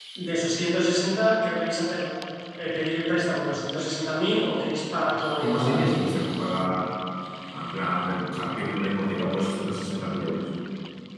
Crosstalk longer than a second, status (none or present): none